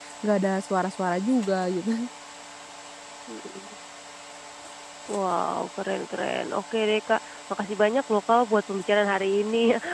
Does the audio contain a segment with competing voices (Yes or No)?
No